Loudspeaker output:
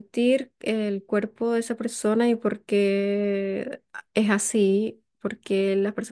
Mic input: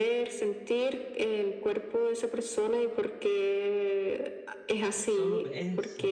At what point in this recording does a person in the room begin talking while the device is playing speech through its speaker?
5.0 s

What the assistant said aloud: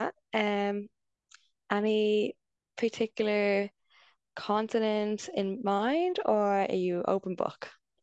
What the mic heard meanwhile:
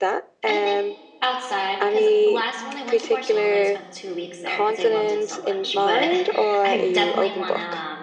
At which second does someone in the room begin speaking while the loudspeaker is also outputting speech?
0.5 s

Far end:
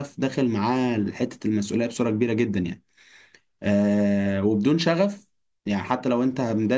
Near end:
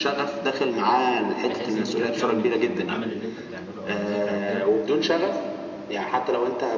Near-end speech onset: 1.5 s

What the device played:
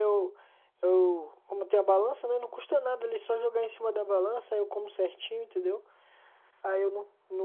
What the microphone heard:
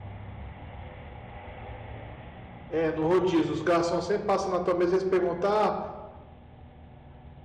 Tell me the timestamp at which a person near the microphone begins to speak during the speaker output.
2.7 s

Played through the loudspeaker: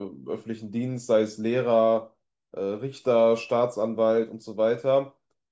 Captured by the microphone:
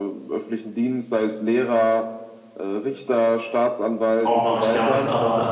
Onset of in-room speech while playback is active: 4.2 s

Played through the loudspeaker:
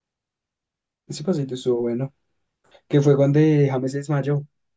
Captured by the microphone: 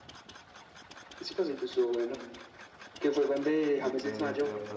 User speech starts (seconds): 3.7 s

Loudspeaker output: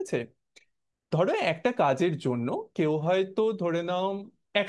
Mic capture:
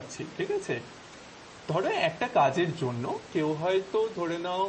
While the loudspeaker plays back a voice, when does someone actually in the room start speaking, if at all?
none

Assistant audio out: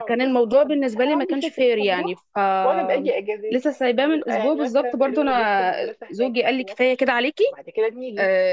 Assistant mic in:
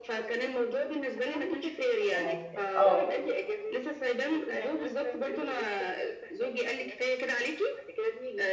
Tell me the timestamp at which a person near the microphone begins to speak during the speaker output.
2.1 s

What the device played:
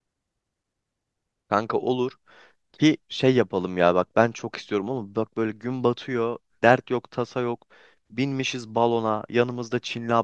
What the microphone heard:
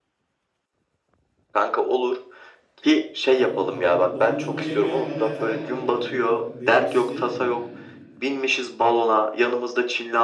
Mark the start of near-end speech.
3.3 s

